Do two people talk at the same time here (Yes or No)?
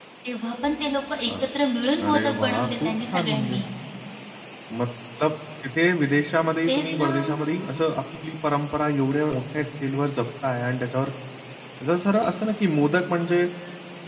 Yes